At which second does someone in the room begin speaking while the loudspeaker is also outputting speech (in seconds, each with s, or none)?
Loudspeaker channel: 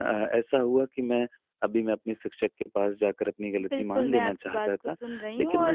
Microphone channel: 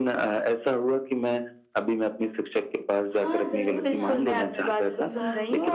3.1 s